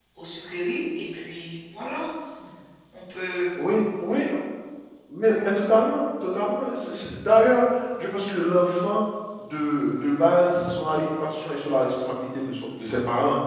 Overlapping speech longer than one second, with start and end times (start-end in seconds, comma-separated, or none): none